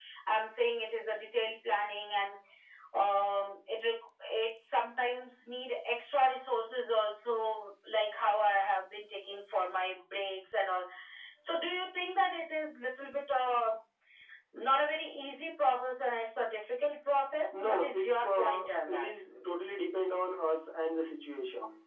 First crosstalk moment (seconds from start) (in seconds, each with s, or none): 17.5 s